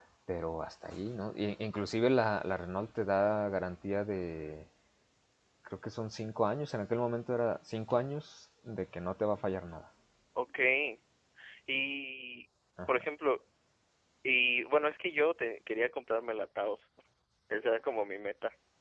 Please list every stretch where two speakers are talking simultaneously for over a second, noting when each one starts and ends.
none

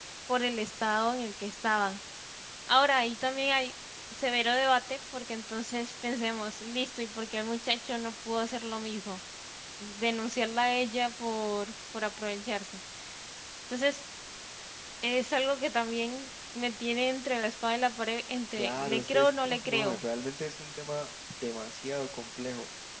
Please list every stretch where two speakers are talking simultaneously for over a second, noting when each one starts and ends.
18.6-20.0

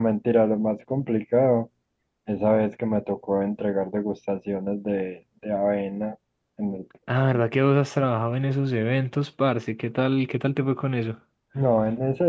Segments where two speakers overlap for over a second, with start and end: none

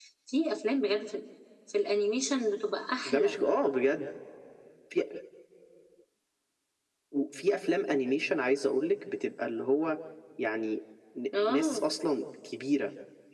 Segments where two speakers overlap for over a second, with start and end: none

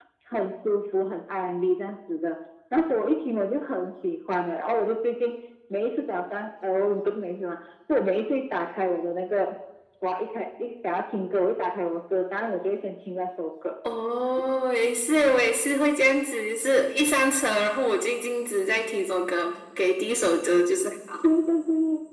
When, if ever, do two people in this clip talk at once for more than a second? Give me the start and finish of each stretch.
none

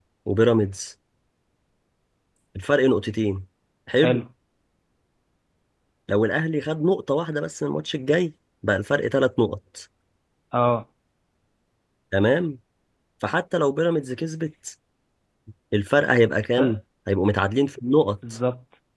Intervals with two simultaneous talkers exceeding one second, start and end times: none

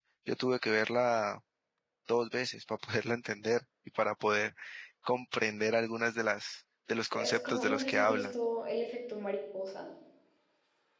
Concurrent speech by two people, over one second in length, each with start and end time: 7.0-8.3

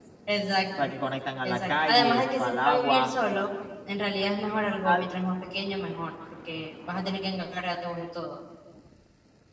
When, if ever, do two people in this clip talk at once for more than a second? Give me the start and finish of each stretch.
1.4-3.1

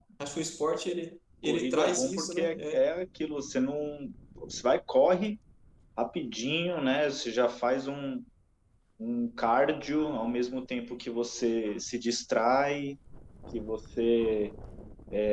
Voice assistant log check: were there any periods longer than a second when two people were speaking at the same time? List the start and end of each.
1.4-2.8

